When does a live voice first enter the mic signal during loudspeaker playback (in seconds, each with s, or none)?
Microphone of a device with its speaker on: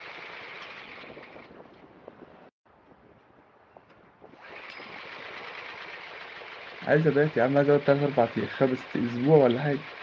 6.8 s